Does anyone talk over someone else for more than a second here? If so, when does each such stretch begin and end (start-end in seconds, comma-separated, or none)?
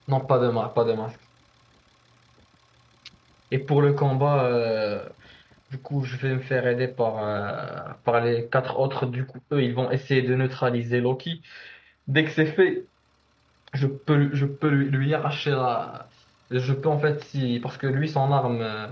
none